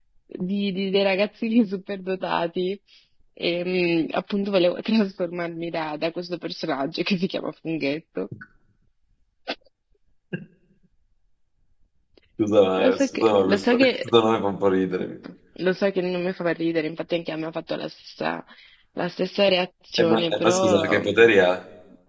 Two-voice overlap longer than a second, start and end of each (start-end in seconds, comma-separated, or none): 12.8-14.1, 20.0-21.3